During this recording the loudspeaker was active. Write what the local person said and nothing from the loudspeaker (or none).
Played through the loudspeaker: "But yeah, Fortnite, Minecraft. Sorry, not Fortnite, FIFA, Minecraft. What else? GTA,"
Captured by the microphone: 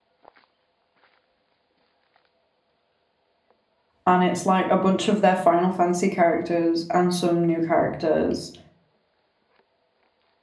and it's like a bunch of their Final Fantasy characters and some new characters